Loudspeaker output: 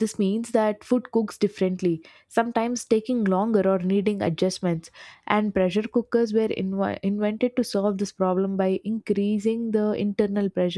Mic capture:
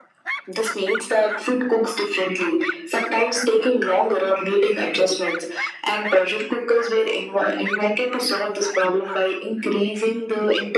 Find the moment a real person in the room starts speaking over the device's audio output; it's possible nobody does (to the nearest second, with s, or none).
none